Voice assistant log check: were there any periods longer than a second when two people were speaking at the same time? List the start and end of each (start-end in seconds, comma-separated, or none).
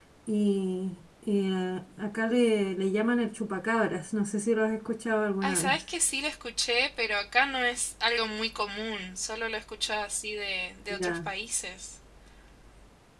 none